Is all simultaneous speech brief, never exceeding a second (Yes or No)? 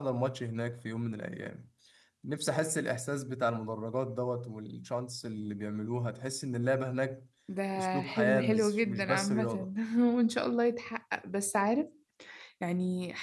No